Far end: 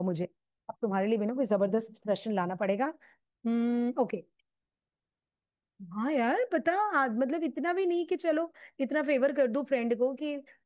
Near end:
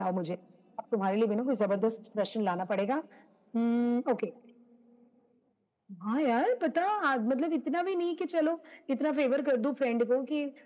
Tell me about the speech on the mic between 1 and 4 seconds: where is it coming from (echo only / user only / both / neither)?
echo only